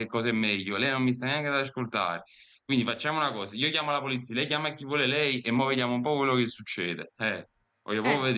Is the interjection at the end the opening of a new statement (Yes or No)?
Yes